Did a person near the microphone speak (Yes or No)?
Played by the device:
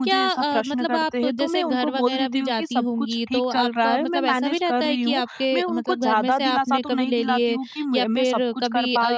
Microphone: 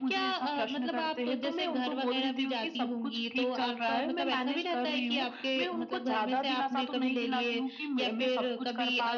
No